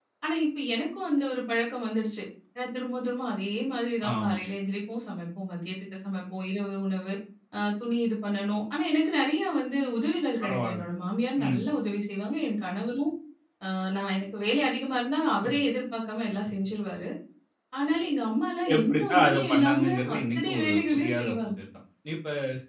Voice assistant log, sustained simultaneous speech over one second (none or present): present